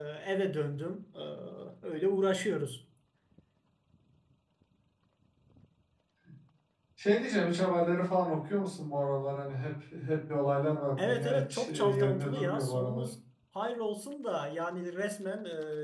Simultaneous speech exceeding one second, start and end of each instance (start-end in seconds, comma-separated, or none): 11.0-13.1